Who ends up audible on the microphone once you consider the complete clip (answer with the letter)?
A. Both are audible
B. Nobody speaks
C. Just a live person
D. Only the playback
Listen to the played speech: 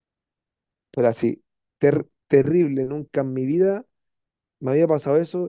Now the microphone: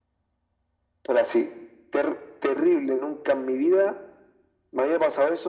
D